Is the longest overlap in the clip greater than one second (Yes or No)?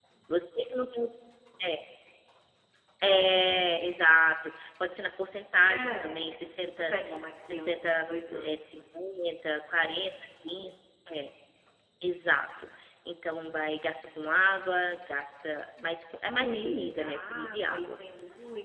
Yes